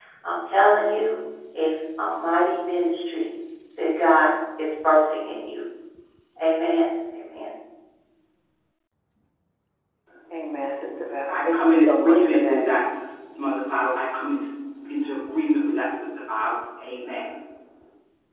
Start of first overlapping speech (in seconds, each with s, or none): 11.3 s